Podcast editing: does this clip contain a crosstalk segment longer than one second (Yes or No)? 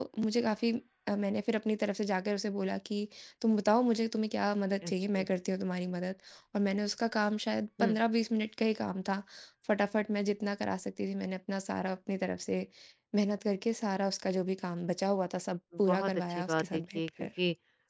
Yes